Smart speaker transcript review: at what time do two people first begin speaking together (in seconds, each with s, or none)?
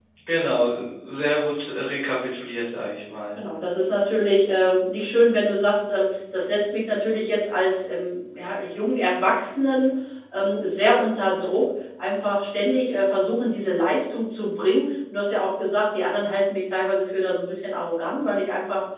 none